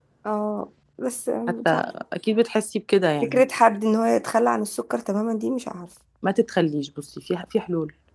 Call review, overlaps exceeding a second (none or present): none